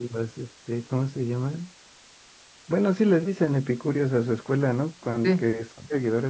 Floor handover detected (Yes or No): No